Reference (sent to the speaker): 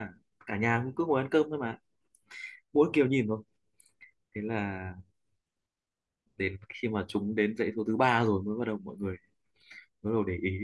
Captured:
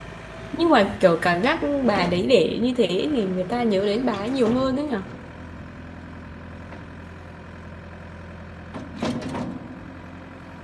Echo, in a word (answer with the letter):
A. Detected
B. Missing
B